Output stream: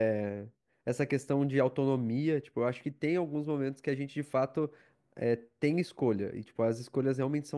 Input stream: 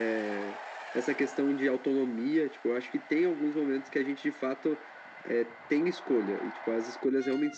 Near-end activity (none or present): none